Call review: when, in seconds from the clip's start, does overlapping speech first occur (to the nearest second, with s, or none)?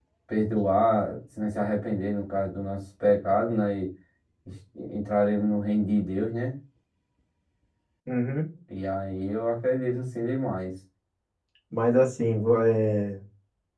none